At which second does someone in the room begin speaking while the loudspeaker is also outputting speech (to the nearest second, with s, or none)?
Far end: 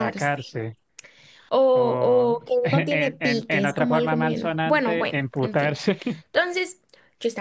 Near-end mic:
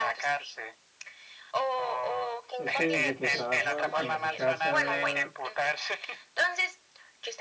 3 s